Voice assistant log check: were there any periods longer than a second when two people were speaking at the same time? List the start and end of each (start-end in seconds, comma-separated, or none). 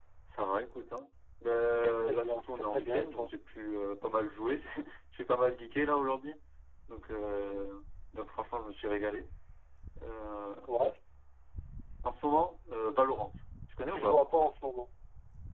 1.7-3.3